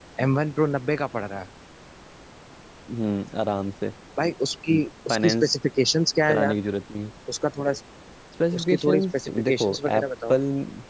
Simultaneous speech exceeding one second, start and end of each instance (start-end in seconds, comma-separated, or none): 8.6-10.4